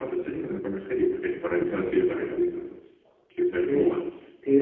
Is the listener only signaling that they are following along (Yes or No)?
No